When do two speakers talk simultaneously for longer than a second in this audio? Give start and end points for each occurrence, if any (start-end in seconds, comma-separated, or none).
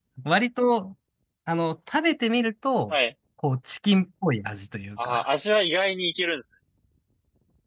none